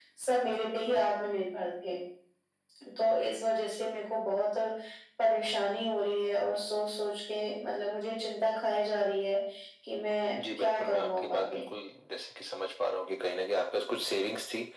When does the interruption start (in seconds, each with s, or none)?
10.4 s